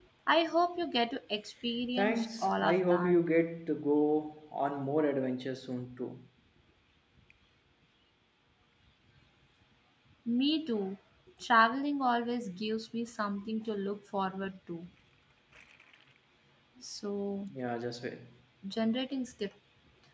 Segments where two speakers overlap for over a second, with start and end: 2.0-3.2

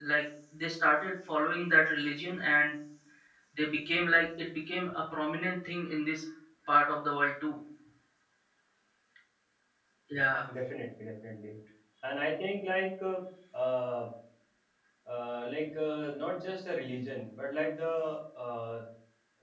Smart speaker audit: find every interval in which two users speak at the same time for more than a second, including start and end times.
none

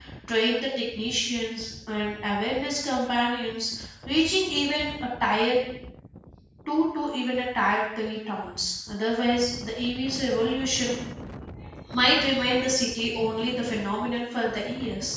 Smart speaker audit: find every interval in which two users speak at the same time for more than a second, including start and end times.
none

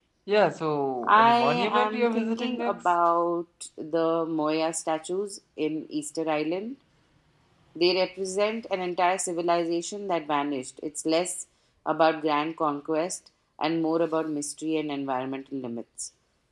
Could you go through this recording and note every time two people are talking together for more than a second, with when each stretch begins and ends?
1.0-2.9

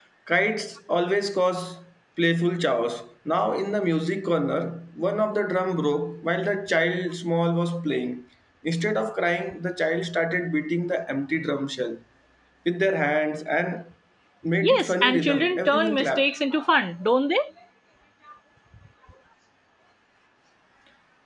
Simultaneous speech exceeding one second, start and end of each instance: 14.6-16.3

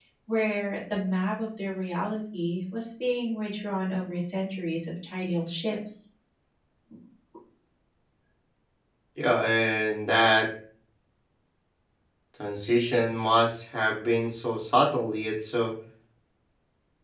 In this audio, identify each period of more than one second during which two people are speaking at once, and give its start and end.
none

